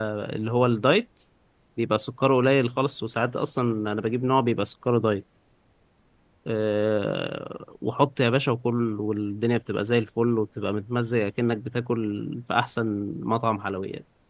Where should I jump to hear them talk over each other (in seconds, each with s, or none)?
none